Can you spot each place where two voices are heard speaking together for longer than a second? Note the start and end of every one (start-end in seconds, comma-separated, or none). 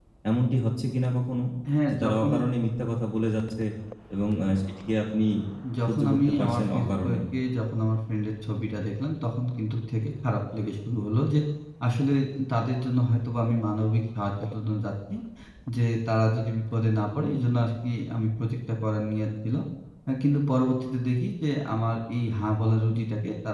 5.9-7.2